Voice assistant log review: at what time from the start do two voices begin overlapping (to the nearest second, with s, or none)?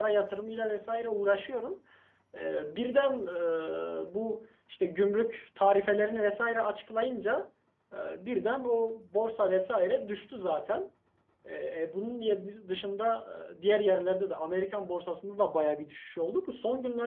none